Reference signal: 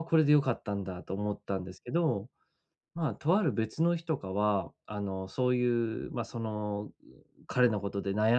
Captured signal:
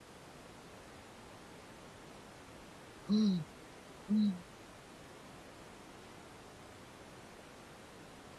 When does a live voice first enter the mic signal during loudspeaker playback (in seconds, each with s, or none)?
3.1 s